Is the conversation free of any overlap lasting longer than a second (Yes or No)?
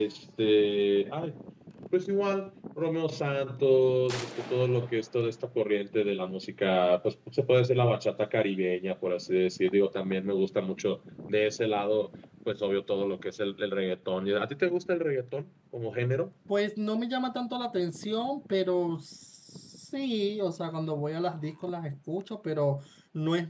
Yes